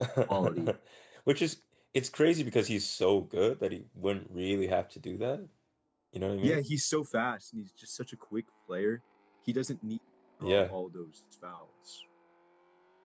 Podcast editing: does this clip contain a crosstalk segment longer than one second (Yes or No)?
No